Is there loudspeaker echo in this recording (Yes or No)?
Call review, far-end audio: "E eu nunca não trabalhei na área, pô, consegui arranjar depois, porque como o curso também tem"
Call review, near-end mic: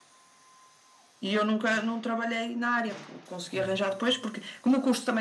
Yes